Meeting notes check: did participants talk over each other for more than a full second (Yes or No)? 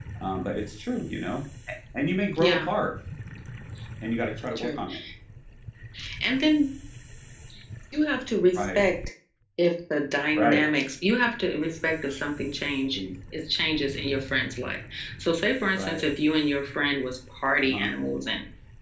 No